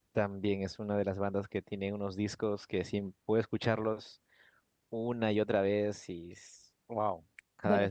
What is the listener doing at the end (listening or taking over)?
taking over